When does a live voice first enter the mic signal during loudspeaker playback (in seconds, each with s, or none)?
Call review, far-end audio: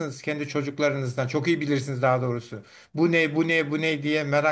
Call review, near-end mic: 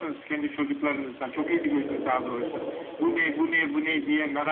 1.3 s